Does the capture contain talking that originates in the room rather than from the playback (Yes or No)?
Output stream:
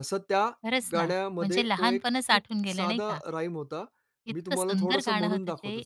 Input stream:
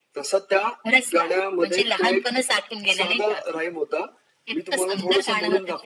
No